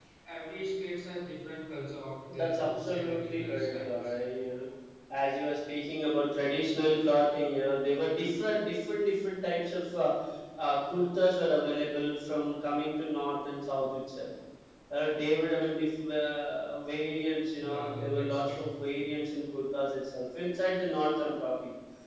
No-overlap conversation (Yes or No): No